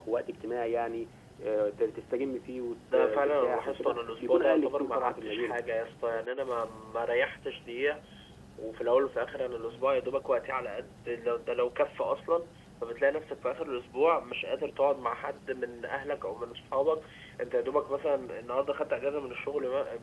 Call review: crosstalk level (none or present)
present